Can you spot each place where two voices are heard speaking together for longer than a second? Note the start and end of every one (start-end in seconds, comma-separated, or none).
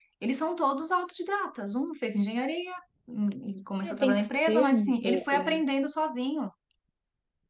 3.8-5.5